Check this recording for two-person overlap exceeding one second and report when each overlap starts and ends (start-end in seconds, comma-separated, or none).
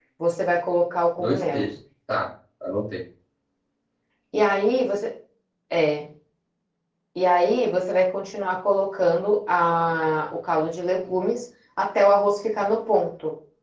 none